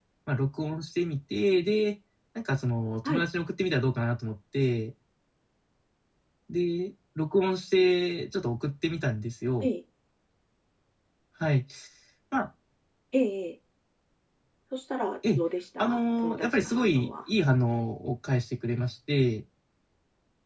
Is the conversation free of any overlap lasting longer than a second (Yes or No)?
No